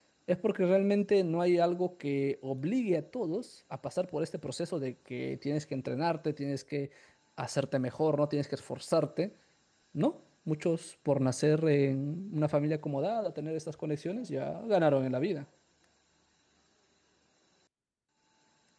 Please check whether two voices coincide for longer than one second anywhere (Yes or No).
No